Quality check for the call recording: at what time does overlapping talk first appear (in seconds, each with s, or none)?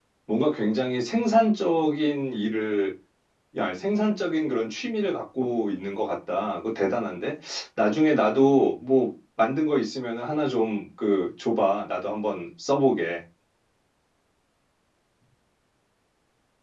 none